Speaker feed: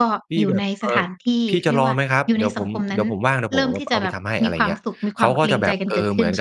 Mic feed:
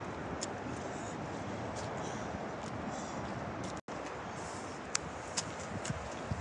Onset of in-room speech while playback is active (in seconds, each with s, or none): none